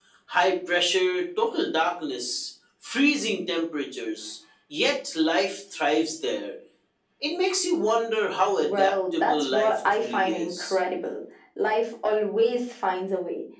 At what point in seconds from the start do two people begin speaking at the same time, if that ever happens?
8.6 s

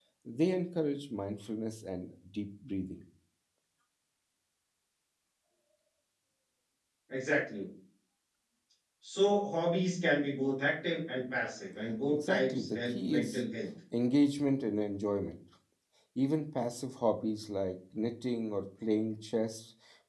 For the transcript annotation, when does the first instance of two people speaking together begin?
12.1 s

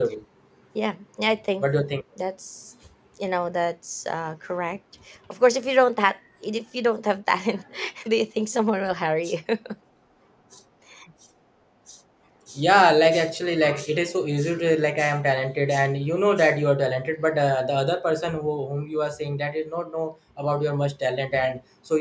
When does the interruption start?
none

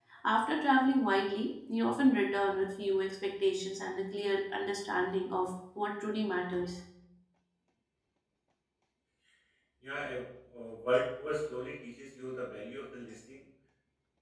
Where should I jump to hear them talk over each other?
none

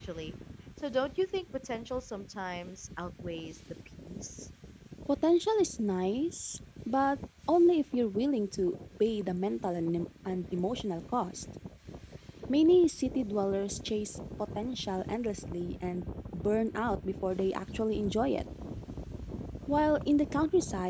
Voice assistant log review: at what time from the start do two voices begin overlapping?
none

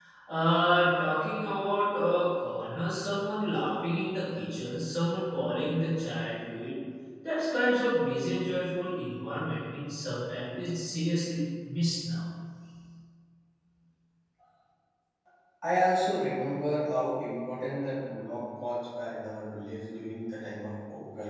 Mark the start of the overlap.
none

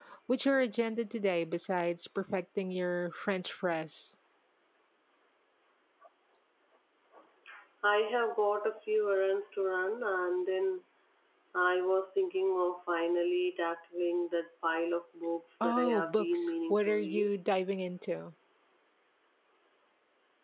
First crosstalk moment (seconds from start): 15.6 s

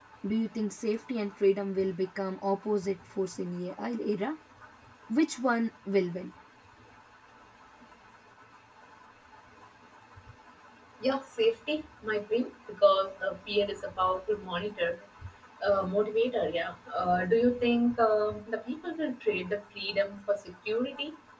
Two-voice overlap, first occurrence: none

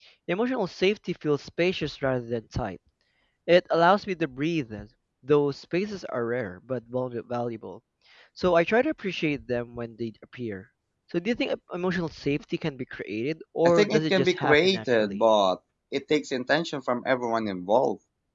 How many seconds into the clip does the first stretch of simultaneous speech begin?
13.7 s

